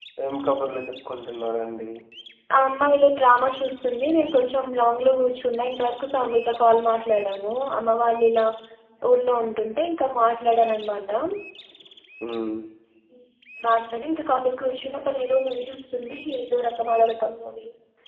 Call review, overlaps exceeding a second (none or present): none